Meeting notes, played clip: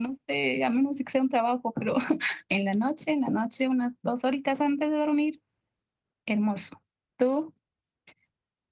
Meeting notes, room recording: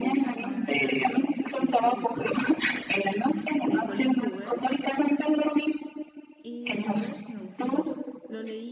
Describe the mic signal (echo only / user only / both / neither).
both